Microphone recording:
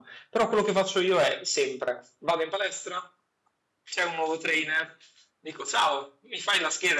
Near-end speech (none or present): present